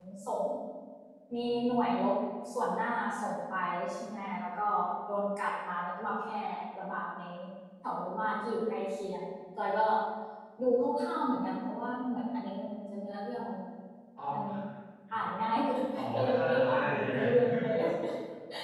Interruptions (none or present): present